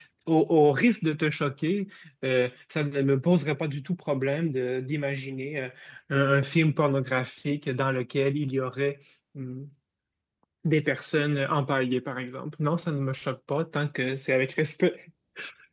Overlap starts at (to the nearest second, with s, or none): none